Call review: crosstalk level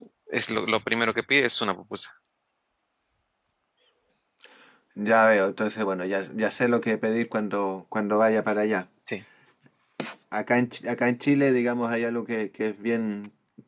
none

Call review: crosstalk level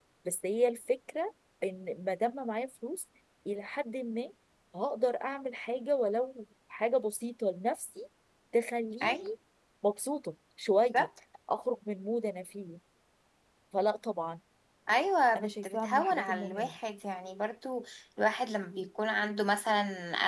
present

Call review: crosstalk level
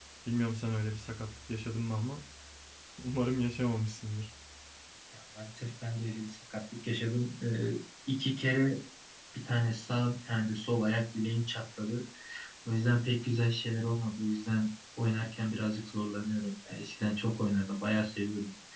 none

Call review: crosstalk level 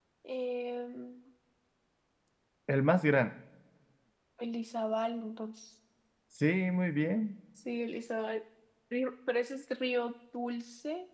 none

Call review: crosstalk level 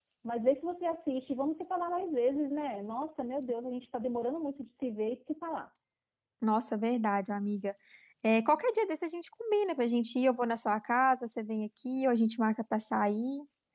none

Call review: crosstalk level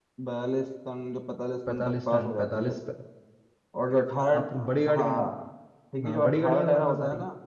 present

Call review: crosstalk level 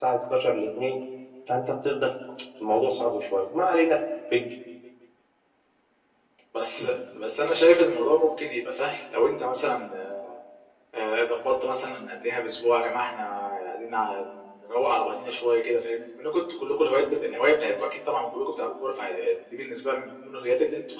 none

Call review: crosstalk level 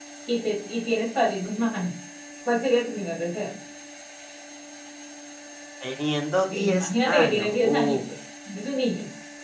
present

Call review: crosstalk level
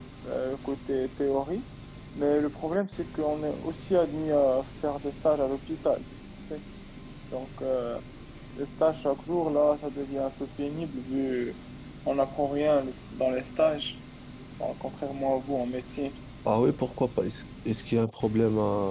none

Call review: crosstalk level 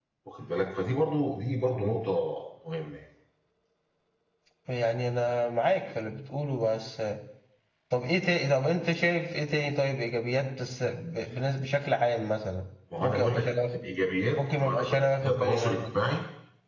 present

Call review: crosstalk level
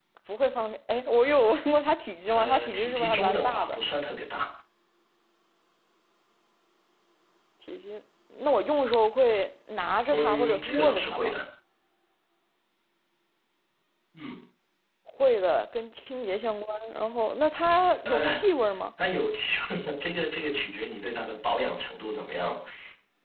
present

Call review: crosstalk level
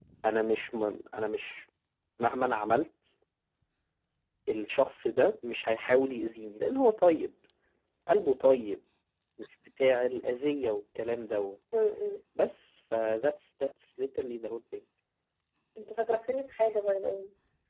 none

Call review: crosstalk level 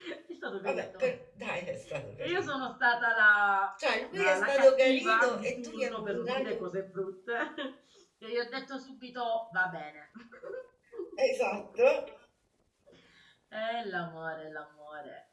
present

